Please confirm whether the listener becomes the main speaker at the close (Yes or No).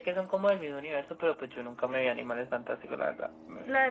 Yes